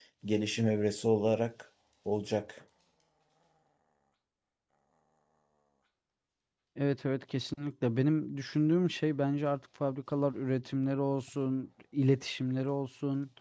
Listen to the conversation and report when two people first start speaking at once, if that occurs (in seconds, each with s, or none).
none